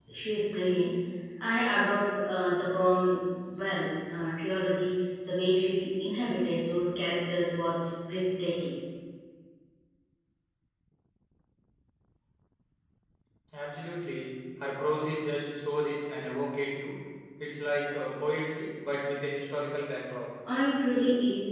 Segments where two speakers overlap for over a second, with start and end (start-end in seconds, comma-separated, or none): none